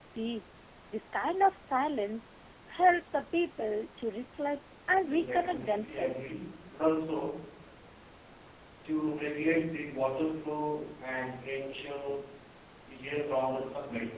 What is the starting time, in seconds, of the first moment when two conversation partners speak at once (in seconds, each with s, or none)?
5.0 s